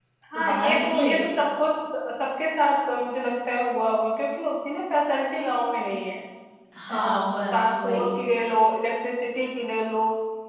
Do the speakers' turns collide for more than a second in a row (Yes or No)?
Yes